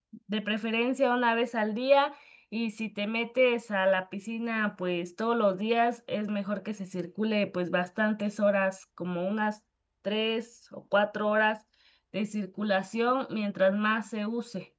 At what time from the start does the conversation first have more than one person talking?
none

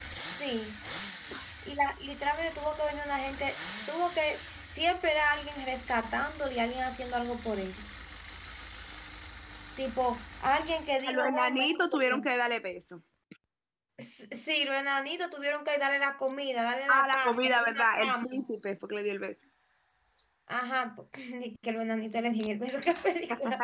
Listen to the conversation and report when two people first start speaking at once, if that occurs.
11.1 s

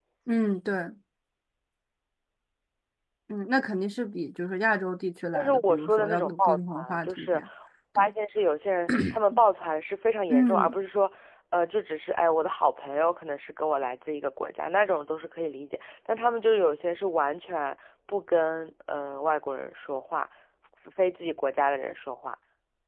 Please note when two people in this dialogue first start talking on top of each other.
5.3 s

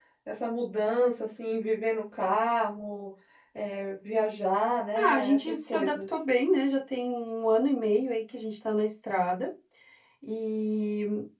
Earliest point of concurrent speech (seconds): 4.9 s

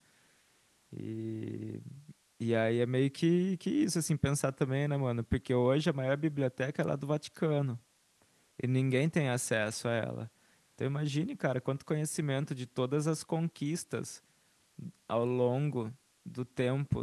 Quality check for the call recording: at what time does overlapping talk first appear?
none

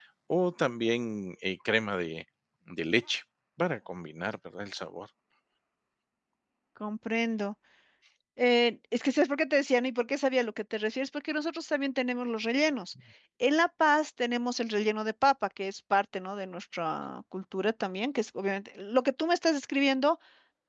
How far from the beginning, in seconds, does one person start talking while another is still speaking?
none

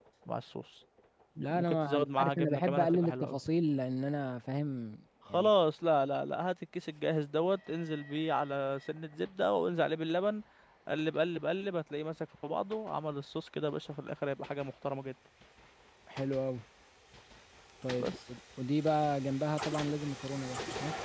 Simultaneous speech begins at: 1.5 s

